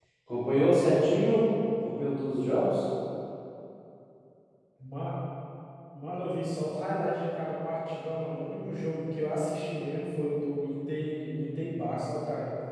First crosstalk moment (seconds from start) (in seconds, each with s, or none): none